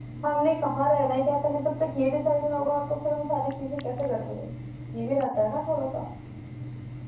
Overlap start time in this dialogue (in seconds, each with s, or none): none